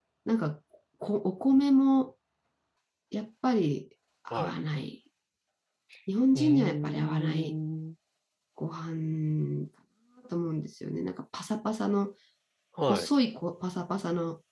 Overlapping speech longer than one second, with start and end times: 6.3-7.6

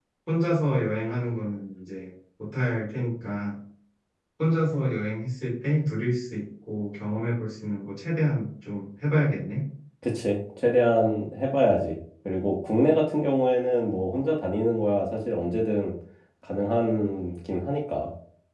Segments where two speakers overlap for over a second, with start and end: none

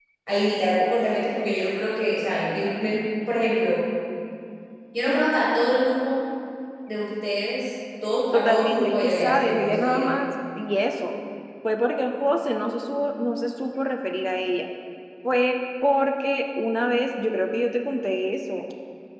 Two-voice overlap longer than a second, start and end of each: 8.3-10.1

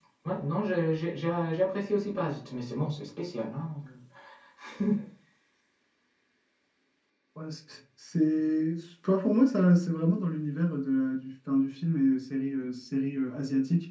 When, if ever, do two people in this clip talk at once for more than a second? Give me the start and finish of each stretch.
none

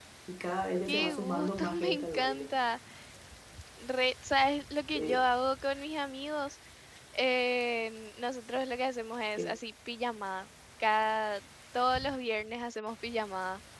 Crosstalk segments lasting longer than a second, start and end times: 0.9-2.5

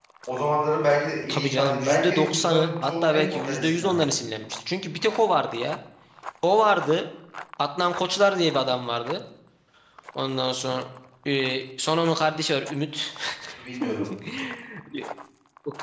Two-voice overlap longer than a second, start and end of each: 1.3-4.1

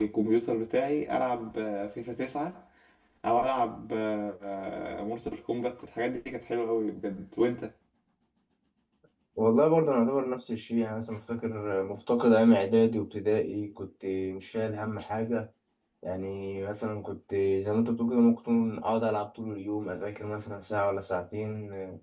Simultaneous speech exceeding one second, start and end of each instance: none

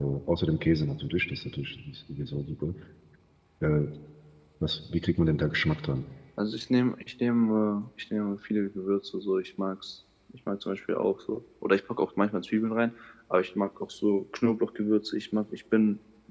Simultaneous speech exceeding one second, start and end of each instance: none

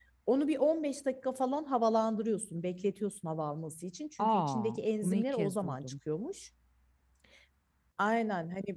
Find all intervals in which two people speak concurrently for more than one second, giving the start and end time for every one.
4.2-5.9

